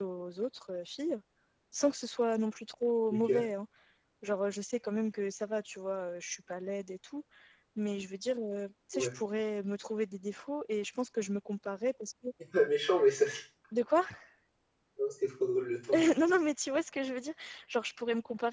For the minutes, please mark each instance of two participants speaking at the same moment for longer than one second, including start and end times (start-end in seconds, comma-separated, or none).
none